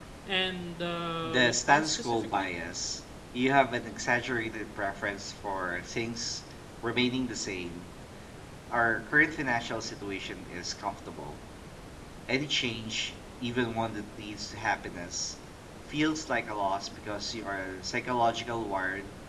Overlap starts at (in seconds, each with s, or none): 1.2 s